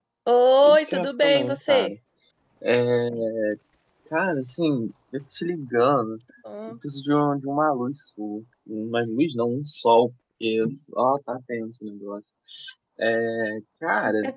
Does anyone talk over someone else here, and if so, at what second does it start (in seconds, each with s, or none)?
0.6 s